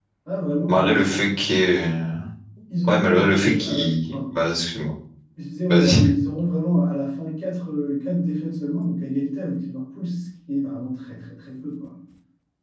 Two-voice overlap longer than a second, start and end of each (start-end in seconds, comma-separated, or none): 2.9-4.4